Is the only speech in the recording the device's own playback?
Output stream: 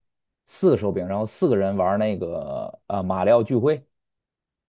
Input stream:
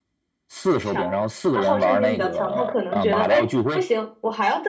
No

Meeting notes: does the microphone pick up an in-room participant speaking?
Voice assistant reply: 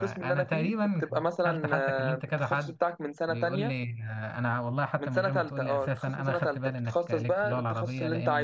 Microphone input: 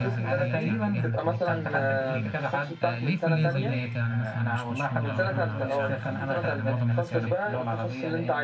Yes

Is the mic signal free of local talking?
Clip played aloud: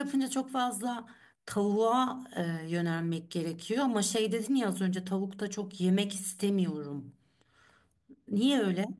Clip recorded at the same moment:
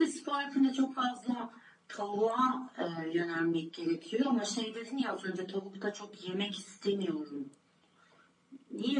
Yes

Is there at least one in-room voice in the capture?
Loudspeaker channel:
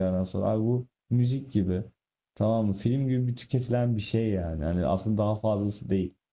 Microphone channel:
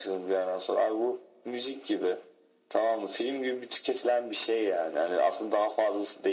No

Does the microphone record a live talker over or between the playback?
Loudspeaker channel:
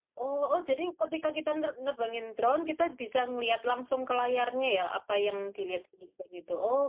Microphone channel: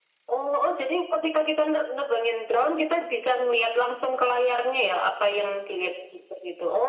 No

